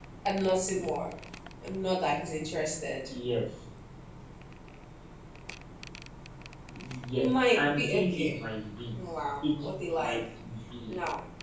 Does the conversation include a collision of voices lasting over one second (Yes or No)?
Yes